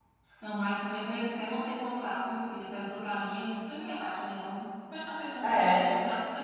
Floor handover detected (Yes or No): No